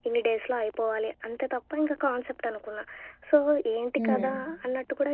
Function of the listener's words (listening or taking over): listening